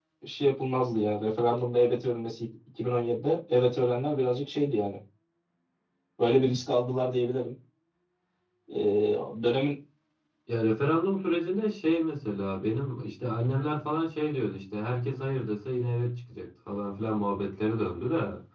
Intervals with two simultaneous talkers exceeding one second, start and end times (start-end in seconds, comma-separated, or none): none